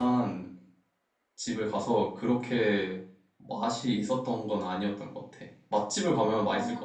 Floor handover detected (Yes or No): Yes